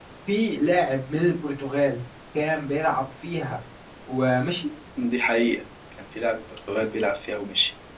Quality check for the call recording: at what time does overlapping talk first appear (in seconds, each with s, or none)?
none